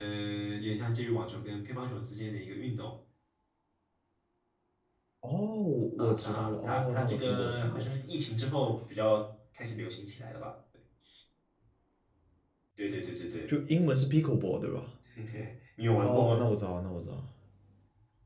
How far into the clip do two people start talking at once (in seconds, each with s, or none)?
6.0 s